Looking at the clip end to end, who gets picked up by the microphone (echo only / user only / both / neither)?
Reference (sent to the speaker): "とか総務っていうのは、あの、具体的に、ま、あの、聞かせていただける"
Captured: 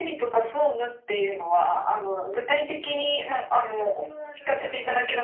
both